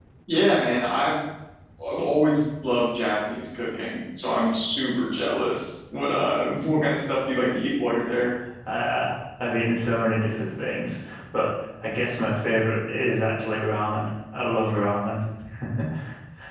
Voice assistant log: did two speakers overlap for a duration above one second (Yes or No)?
No